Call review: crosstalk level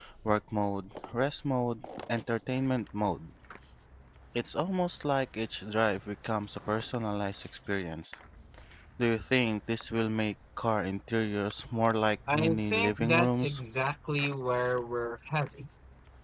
present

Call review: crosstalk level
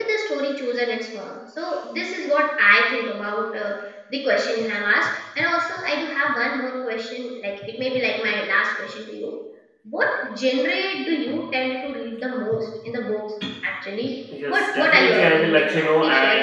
present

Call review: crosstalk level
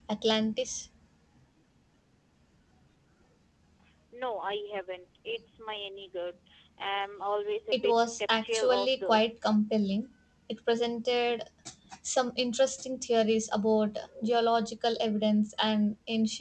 present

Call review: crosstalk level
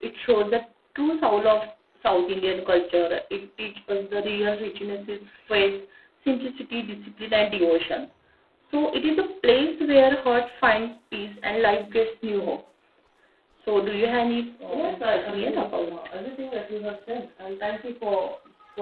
present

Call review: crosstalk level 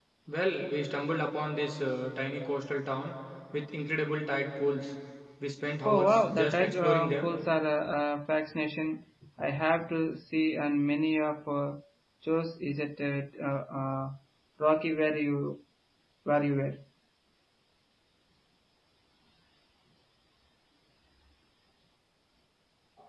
present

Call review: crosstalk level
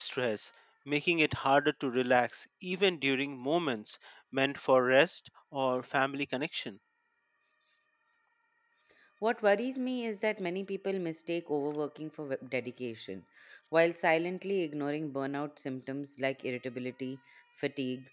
none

